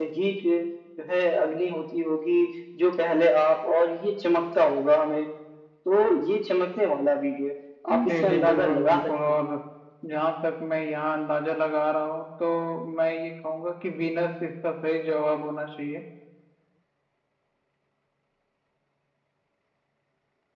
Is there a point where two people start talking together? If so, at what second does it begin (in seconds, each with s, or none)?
8.1 s